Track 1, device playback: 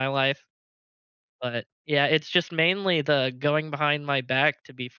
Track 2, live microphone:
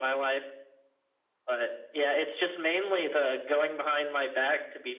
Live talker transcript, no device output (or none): none